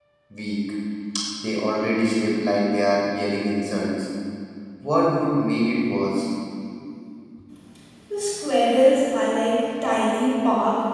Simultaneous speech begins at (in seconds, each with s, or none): none